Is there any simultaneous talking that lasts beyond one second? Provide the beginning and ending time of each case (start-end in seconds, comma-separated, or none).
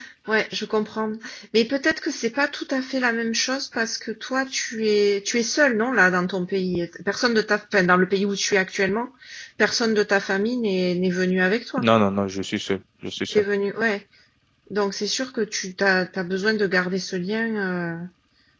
none